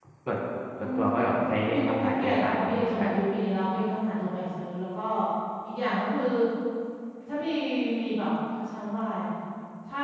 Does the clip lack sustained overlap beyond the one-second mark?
No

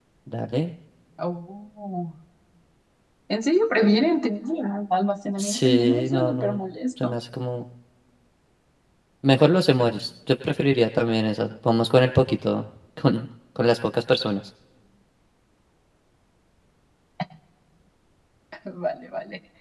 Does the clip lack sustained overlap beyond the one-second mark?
No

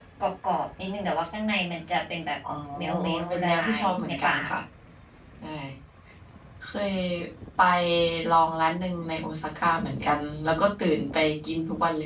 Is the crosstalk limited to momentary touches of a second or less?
No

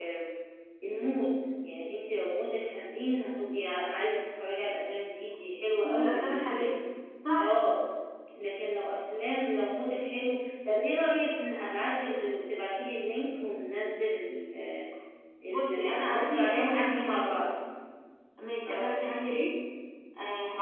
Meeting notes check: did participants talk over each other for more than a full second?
Yes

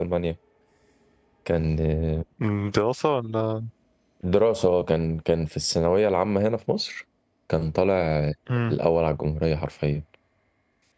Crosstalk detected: No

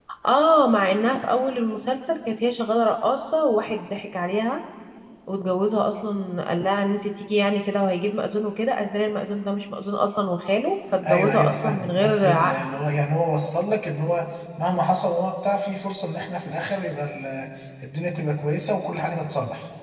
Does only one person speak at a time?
No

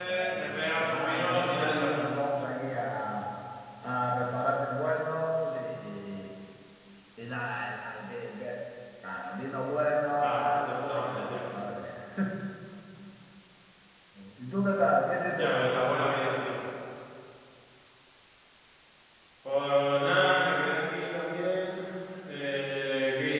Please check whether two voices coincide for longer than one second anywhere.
Yes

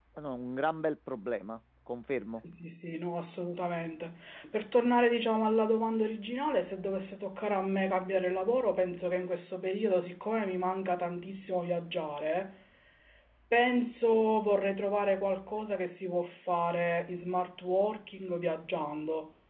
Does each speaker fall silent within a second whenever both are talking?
Yes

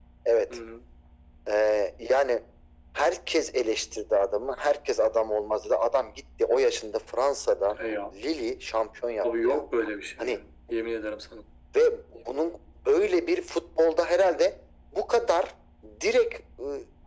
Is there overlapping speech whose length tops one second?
No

